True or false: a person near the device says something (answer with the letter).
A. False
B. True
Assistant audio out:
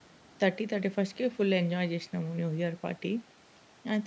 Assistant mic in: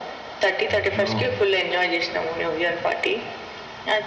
B